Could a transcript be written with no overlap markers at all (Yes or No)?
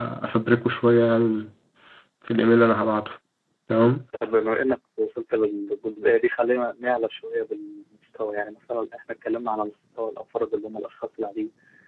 Yes